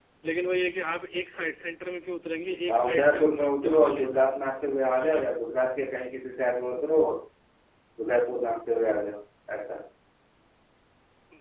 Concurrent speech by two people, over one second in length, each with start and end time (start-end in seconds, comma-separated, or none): 2.7-4.4